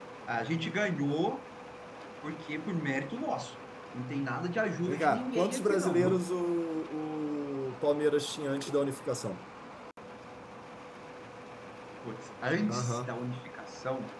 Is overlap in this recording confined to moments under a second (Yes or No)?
No